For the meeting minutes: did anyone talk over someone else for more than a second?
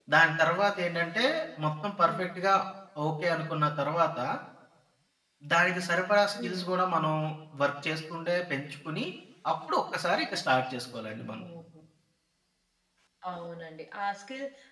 No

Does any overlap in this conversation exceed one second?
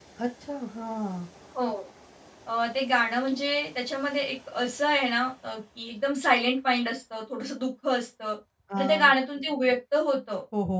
No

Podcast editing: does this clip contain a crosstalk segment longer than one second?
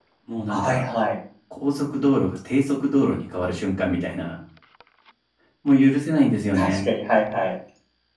No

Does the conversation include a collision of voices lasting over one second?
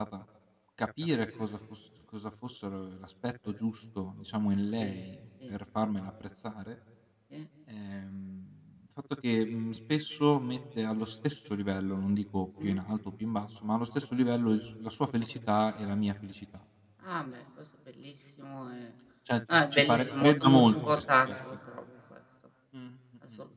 Yes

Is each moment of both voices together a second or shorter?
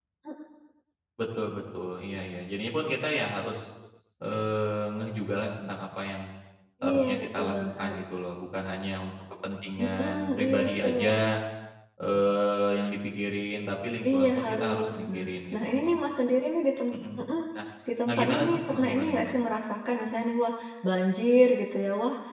No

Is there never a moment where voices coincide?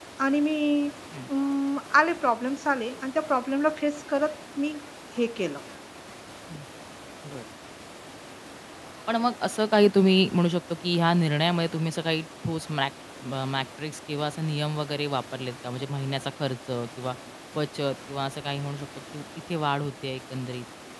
Yes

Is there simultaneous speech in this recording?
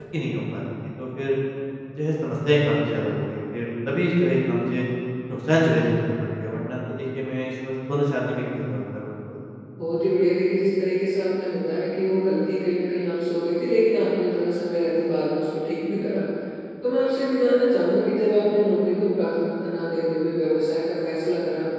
No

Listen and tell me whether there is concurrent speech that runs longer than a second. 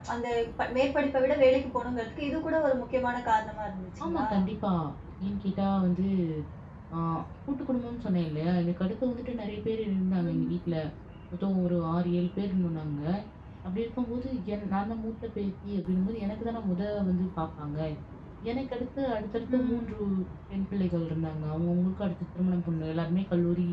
No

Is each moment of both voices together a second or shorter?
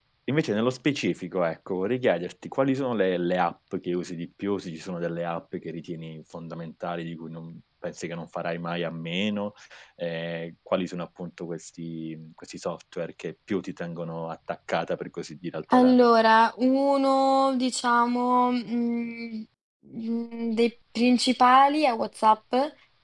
Yes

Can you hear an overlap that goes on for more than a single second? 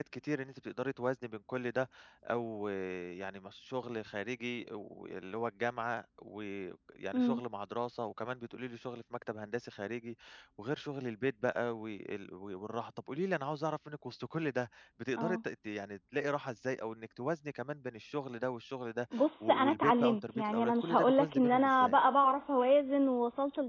Yes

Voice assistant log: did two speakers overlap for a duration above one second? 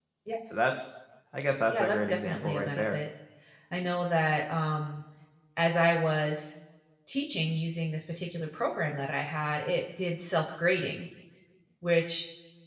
Yes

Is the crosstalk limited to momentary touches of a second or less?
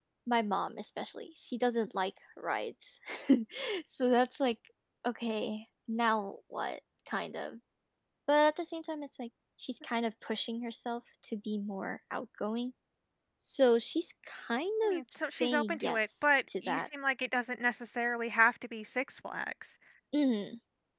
No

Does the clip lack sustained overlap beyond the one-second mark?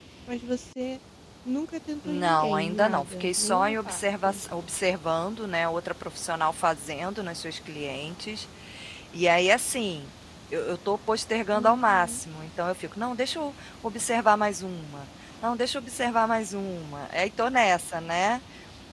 No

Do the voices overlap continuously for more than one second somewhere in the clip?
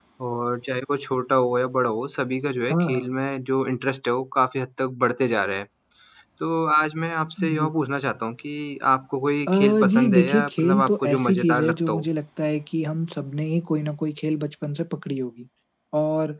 Yes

